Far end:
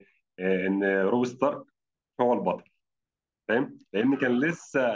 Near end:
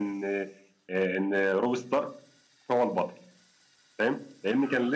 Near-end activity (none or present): none